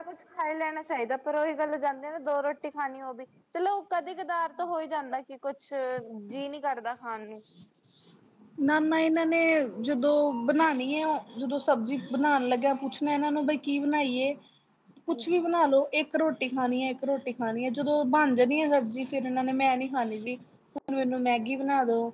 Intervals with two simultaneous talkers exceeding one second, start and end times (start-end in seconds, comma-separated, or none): none